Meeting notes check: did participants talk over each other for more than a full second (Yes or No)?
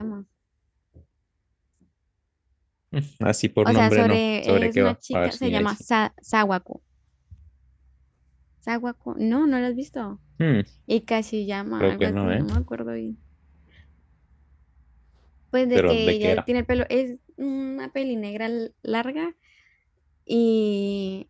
Yes